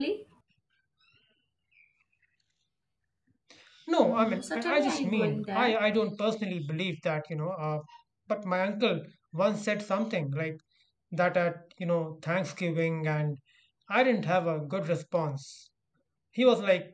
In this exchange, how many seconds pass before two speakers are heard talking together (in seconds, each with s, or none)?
4.0 s